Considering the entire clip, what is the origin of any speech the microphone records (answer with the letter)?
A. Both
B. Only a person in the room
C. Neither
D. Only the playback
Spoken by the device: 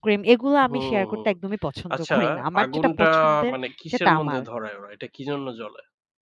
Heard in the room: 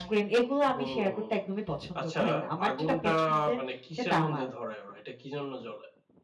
D